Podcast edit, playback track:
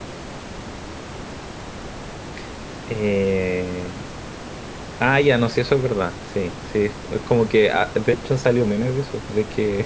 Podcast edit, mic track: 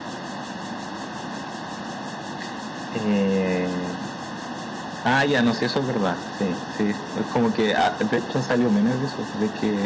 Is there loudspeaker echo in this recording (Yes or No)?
Yes